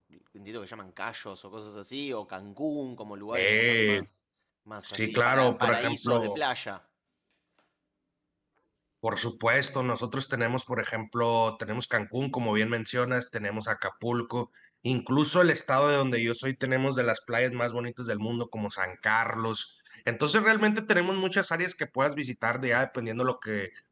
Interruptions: present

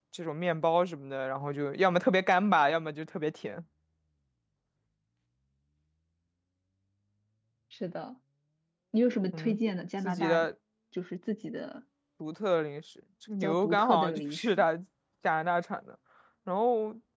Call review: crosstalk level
present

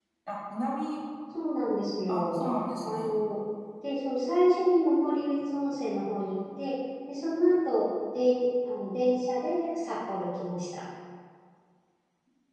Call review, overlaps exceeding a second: none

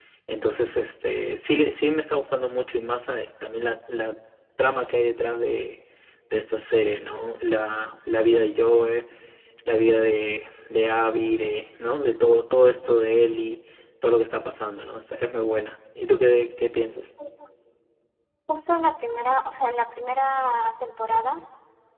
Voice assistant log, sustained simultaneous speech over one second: none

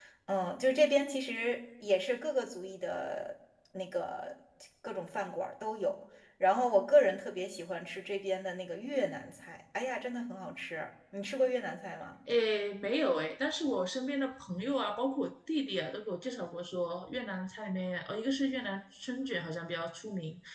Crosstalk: none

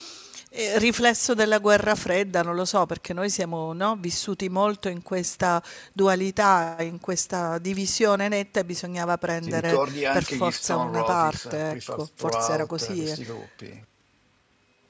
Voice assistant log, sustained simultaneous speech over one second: present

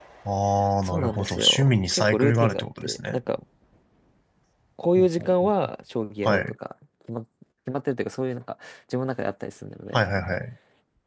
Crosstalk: present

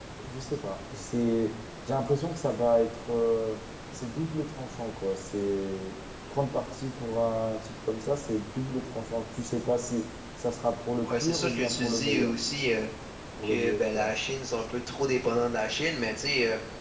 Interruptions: present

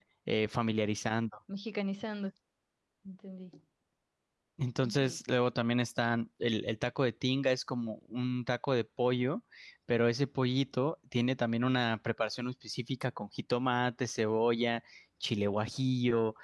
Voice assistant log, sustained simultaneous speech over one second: none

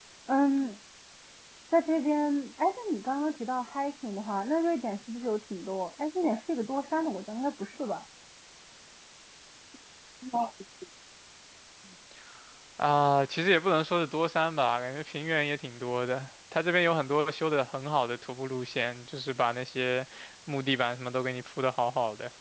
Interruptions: none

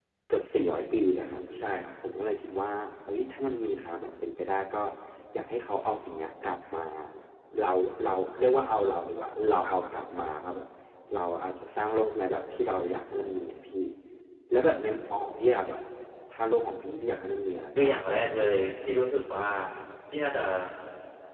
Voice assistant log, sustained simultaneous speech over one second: none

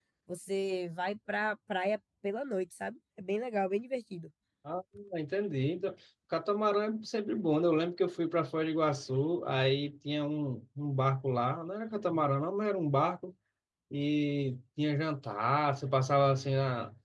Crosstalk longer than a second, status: none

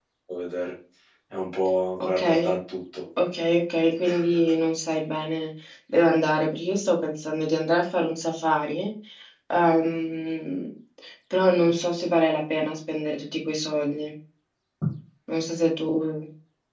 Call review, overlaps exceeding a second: none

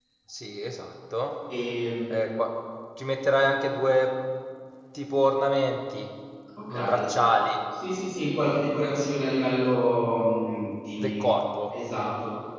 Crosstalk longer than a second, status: none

